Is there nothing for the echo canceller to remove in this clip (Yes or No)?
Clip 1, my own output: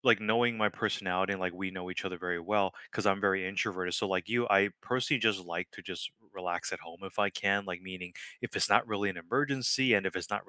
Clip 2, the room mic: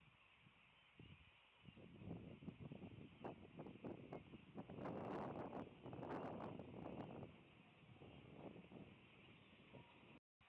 Yes